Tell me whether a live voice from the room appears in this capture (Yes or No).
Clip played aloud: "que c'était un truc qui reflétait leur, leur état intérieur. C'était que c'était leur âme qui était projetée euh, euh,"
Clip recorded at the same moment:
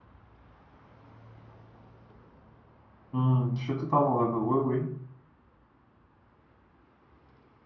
Yes